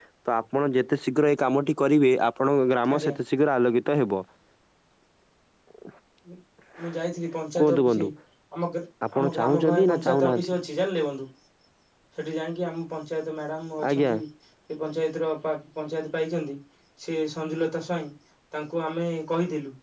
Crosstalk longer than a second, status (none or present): present